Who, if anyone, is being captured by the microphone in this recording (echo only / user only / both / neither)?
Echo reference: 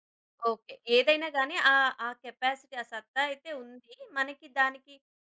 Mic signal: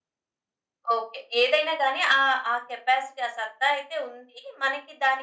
echo only